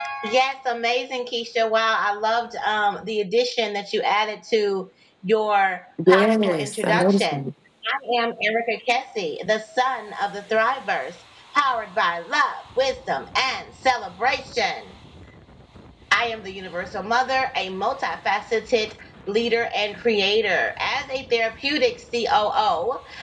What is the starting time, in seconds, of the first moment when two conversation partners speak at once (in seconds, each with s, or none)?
6.0 s